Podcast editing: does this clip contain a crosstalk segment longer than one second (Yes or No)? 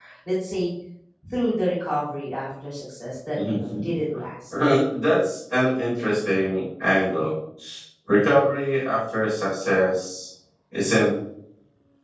No